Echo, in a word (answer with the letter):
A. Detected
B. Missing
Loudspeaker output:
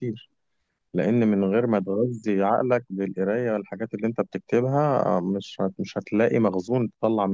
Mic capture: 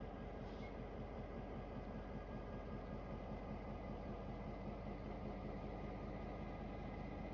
B